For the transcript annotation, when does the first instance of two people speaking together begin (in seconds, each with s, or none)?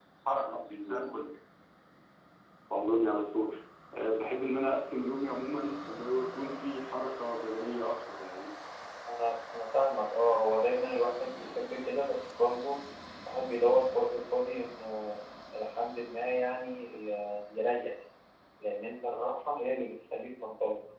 none